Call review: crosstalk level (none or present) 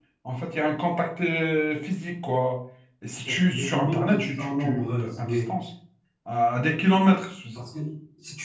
present